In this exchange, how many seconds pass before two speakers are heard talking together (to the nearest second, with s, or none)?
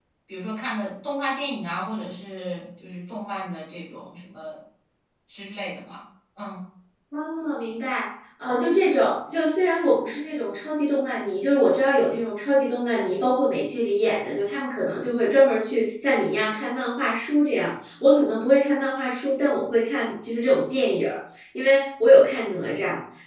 none